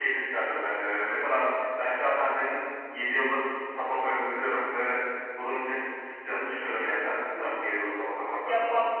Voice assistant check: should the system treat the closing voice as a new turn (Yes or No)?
Yes